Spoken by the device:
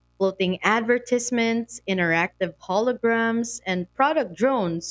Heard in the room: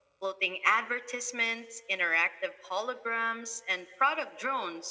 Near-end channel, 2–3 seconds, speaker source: echo only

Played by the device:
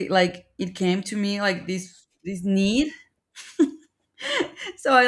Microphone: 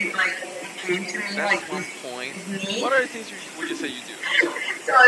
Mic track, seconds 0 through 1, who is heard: echo only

